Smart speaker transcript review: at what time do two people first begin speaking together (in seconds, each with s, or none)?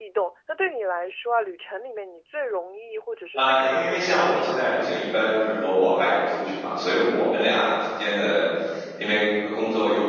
3.3 s